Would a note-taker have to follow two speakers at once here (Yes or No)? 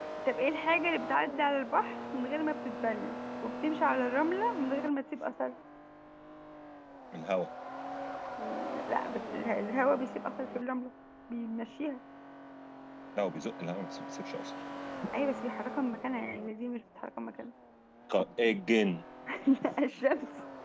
No